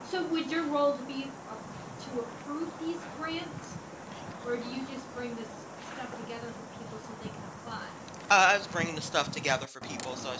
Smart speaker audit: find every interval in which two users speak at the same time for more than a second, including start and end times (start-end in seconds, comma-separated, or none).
none